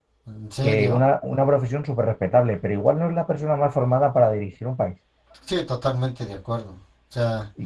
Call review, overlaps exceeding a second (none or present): none